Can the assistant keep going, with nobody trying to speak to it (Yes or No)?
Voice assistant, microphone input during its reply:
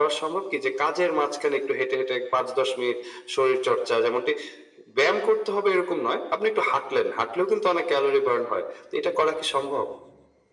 Yes